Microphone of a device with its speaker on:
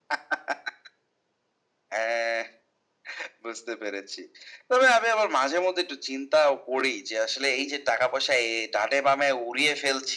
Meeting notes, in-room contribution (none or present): none